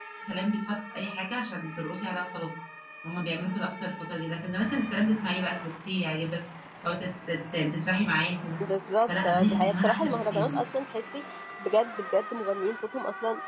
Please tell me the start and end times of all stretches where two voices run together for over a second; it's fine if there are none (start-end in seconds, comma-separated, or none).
9.1-10.6